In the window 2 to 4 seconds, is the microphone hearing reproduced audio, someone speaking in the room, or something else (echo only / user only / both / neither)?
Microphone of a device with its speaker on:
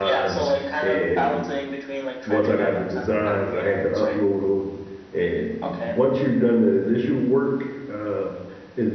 both